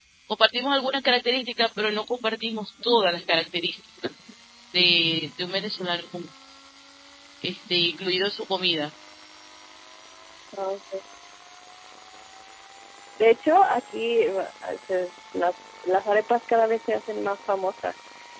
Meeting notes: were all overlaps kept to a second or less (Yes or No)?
Yes